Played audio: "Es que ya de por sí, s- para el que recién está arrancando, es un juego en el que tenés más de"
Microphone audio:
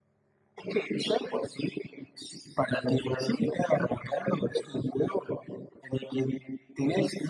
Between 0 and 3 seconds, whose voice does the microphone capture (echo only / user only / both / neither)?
echo only